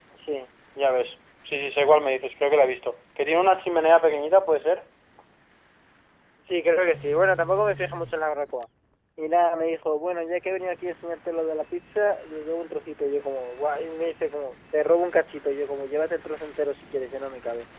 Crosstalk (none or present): none